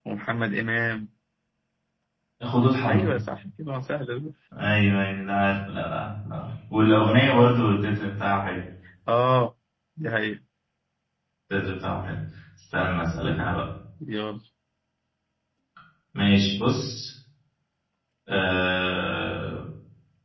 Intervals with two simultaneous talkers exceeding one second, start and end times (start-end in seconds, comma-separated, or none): none